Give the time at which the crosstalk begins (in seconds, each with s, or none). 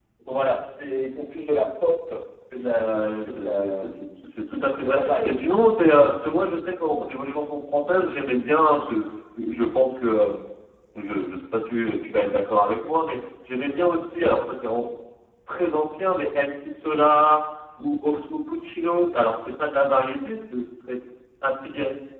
2.8 s